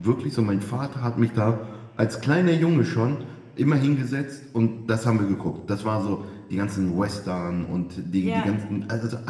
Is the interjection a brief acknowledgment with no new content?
Yes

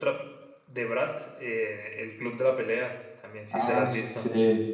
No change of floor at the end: No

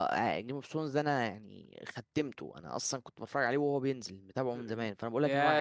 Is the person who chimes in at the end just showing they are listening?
No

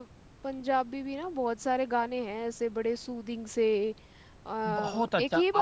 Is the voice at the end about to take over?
Yes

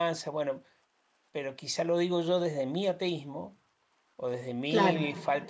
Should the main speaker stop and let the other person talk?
No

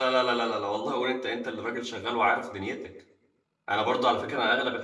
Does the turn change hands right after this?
No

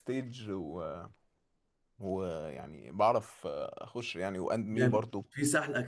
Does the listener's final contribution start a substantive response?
Yes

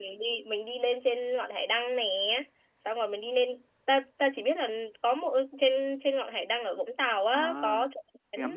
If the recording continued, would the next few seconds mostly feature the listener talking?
Yes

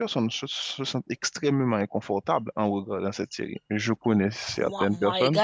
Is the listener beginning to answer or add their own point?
Yes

